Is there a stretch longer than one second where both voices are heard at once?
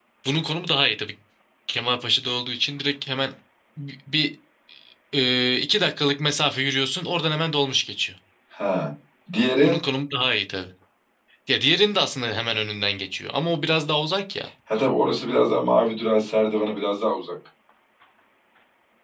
No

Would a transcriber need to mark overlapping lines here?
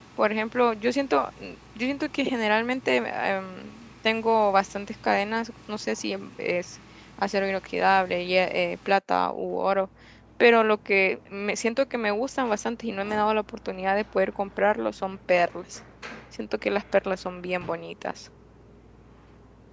No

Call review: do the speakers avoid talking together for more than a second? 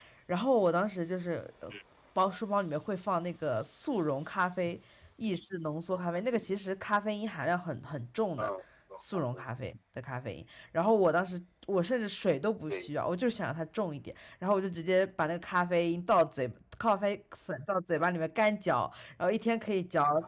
Yes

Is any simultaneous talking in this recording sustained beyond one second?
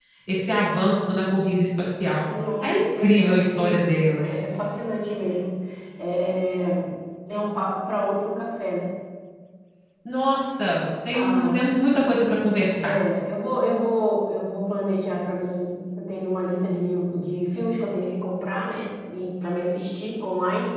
Yes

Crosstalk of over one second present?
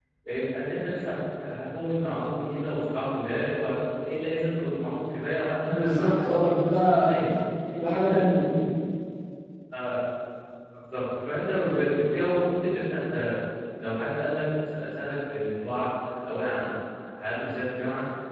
Yes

